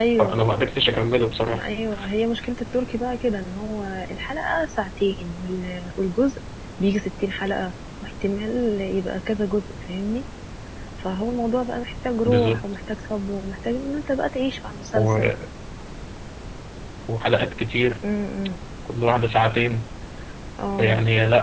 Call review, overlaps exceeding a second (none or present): none